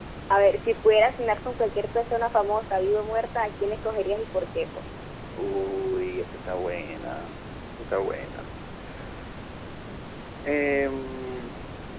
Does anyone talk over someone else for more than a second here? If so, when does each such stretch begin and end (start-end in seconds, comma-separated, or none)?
none